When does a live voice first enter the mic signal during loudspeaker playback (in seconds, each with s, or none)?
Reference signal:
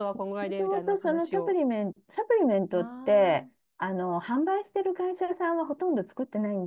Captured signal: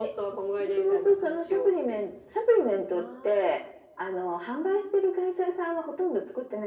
none